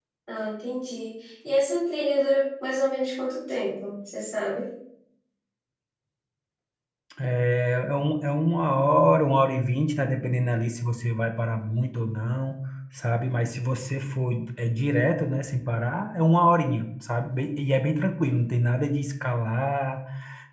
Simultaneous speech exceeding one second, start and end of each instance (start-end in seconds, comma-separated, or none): none